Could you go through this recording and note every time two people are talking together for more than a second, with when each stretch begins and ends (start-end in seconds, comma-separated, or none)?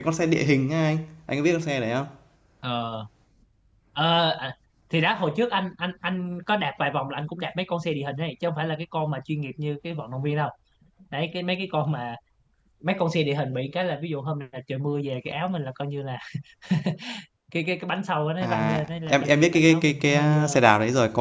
18.4-20.6